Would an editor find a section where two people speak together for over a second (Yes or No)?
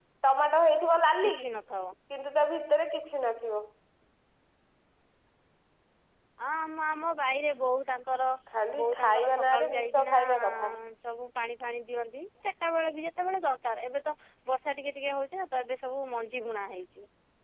Yes